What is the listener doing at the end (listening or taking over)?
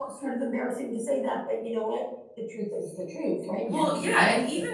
taking over